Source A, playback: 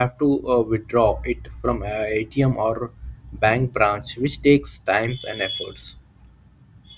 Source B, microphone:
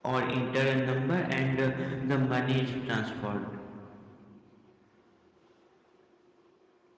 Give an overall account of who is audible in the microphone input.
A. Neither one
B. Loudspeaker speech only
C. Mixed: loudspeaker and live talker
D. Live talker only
D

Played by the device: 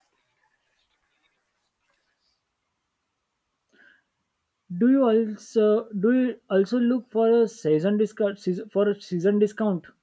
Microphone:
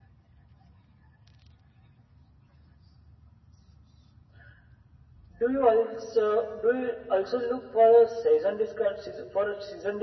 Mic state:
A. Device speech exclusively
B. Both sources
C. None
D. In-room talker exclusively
A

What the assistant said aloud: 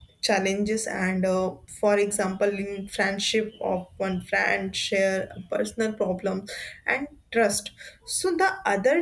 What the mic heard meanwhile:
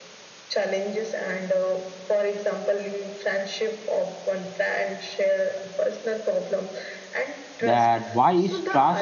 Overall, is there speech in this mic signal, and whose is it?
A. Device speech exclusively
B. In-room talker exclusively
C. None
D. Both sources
D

